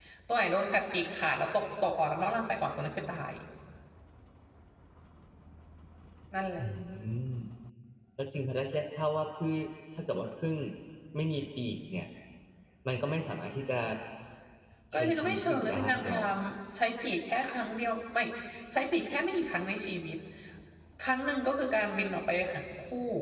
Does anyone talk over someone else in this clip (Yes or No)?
Yes